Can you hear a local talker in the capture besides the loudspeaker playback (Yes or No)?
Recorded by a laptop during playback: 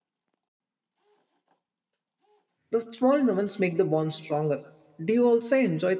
Yes